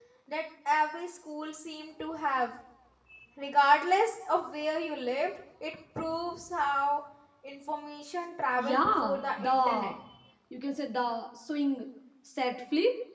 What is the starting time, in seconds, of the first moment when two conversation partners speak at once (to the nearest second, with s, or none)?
9 s